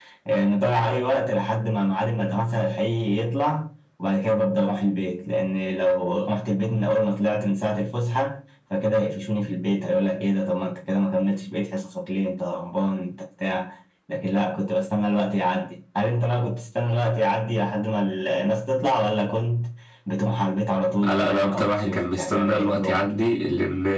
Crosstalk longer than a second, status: present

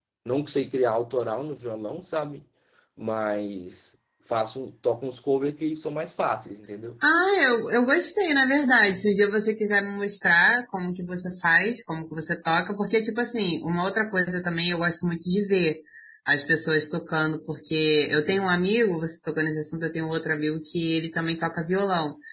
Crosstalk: none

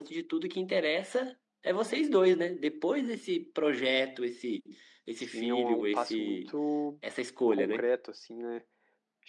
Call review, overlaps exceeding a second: present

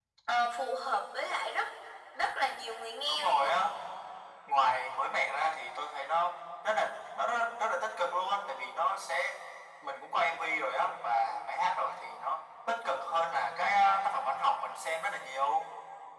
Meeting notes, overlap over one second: none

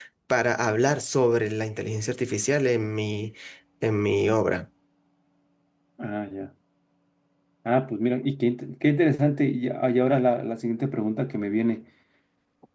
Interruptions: none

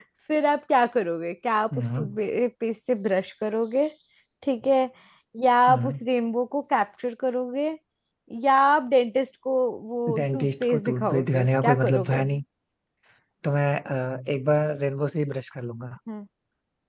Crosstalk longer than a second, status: present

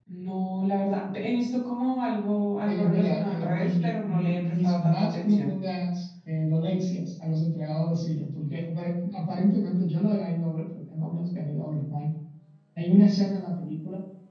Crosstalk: present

